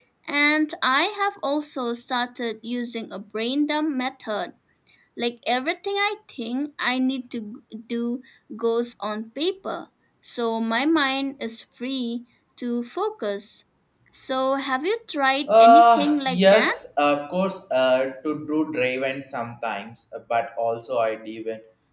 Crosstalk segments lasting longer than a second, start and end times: 15.5-16.8

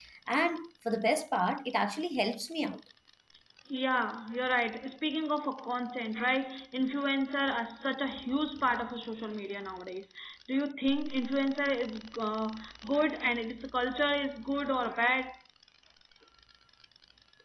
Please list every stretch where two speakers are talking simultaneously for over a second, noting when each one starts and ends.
none

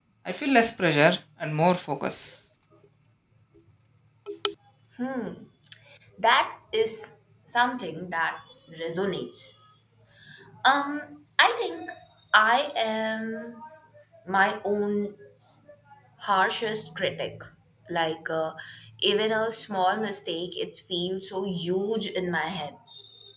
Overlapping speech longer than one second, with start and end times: none

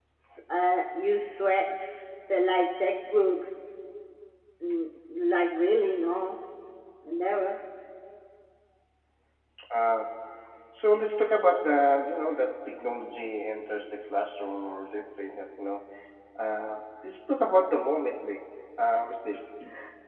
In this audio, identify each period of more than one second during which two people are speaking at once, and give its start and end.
none

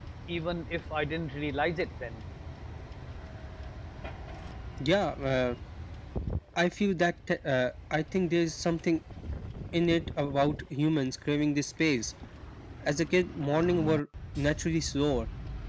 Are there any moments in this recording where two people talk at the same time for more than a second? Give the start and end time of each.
none

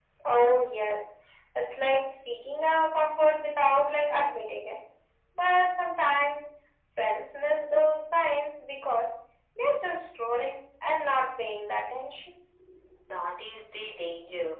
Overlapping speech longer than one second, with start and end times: none

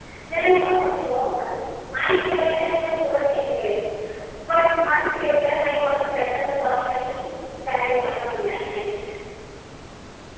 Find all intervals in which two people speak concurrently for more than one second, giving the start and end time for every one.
none

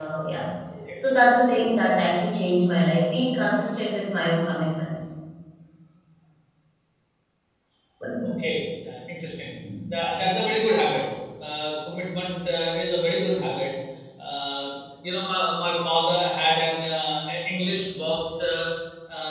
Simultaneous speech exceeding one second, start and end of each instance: none

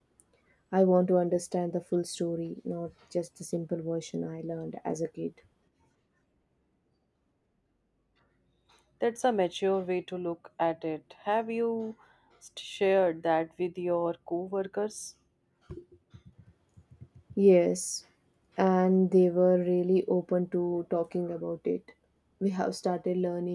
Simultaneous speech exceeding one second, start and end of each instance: none

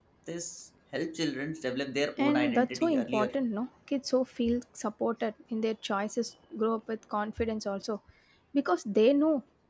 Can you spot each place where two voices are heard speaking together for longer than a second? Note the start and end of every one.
2.2-3.4

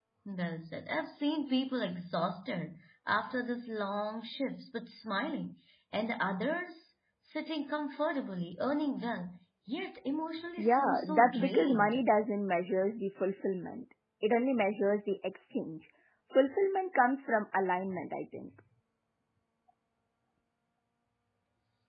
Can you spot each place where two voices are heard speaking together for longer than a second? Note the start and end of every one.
10.6-12.0

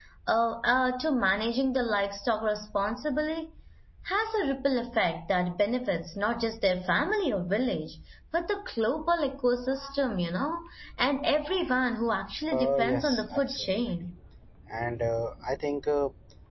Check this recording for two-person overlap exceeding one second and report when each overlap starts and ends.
12.5-13.8

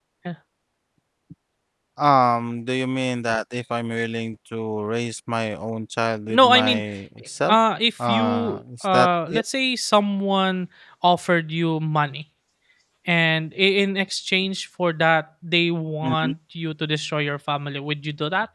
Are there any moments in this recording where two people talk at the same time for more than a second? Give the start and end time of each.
8.1-9.4

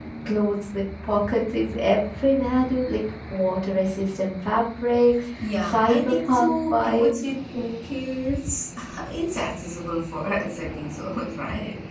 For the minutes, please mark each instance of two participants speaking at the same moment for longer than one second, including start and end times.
5.4-7.2

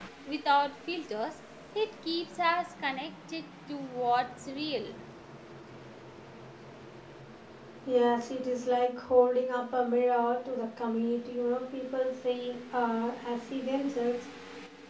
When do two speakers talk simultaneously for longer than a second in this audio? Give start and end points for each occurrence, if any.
none

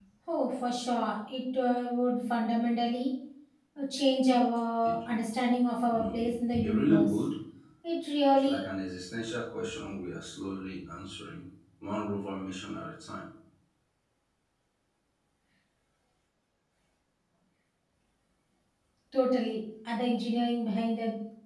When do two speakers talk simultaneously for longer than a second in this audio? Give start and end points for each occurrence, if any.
5.9-7.2

